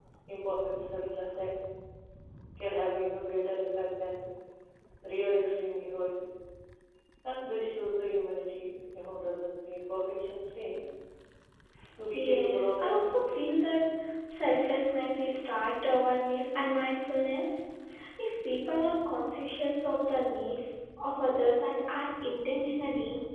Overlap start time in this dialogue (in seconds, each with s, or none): 12.1 s